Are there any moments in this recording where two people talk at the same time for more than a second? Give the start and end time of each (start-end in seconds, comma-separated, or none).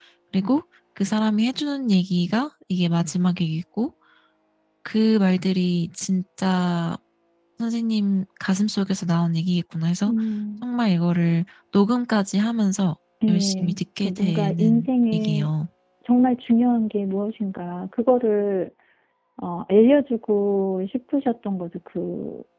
13.3-15.5